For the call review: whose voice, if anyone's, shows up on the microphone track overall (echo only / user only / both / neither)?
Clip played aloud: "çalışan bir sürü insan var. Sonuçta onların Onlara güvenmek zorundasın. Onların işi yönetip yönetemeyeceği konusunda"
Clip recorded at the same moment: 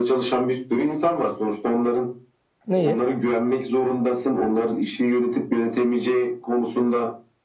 both